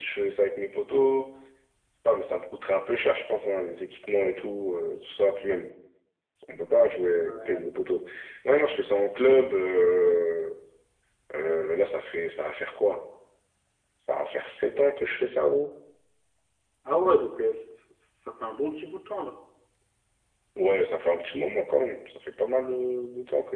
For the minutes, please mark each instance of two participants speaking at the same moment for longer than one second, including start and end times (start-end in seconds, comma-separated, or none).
none